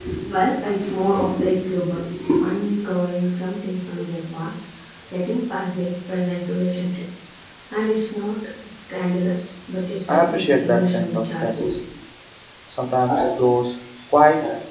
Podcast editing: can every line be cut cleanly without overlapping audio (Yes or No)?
No